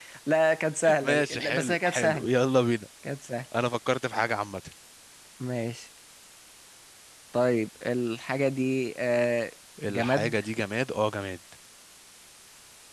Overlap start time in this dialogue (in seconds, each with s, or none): 1.0 s